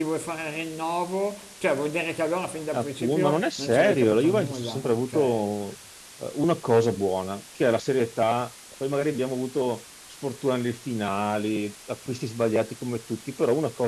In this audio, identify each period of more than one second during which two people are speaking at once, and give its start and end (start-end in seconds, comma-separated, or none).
2.7-5.5